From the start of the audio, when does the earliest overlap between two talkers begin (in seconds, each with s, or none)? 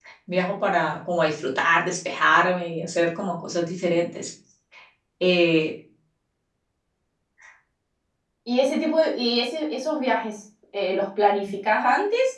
none